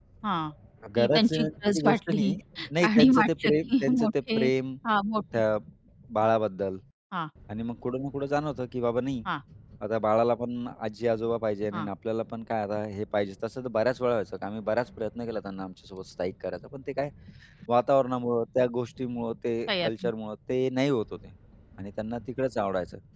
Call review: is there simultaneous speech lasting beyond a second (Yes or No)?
Yes